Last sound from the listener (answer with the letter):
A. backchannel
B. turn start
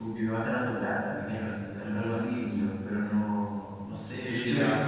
B